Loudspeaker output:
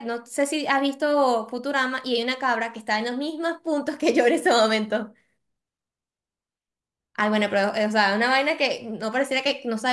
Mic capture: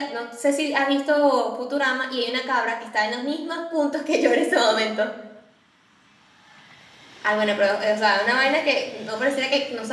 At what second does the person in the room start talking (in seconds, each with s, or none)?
none